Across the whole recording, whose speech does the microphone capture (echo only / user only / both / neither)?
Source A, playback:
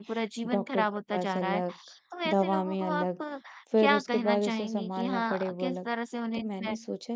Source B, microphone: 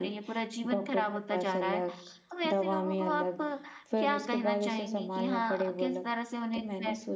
echo only